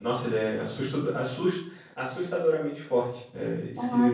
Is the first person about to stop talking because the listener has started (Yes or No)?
Yes